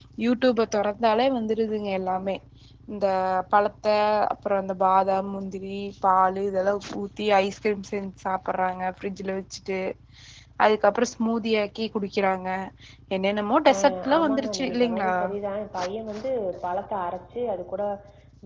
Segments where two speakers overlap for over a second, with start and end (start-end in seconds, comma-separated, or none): 13.7-15.1